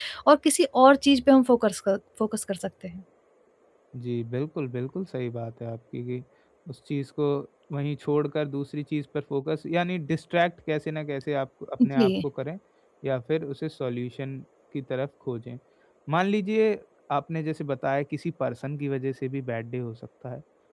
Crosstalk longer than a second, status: none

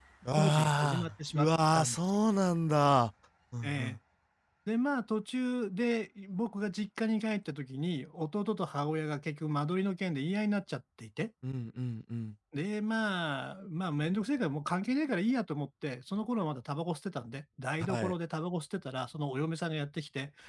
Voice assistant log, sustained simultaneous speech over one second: present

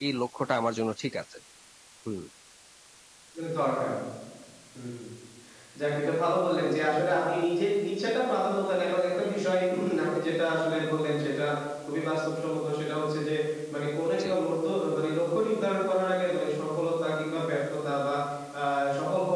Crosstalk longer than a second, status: none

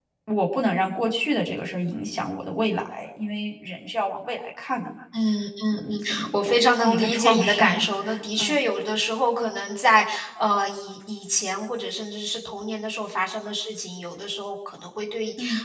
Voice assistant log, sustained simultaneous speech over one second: present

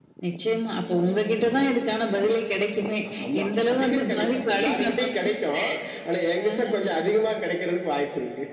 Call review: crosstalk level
present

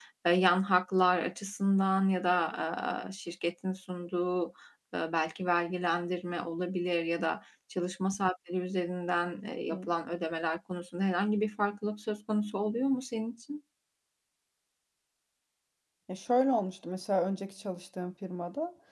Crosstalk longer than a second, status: none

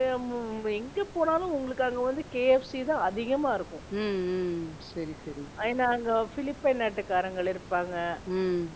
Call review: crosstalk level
none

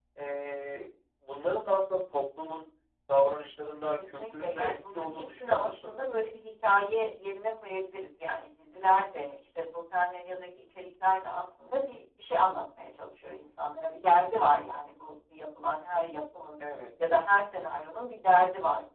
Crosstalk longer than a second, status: present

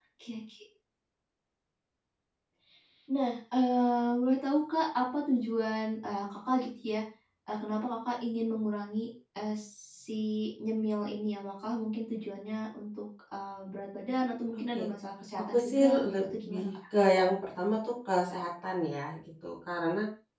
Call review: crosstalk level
present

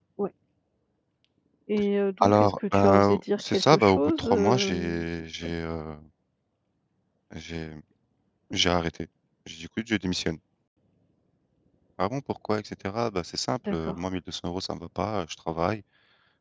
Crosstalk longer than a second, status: present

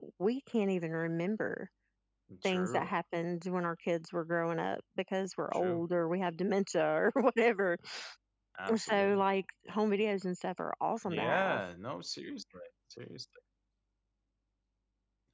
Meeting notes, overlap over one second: none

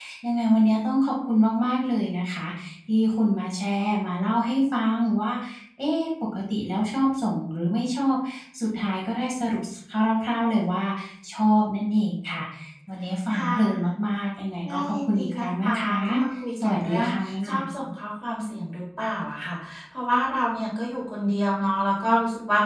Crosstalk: present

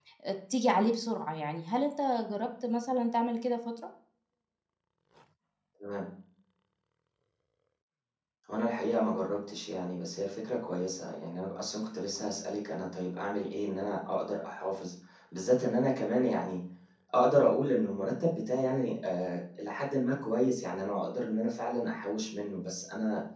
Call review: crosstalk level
none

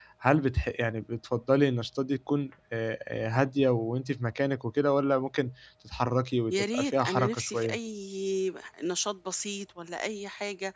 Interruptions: present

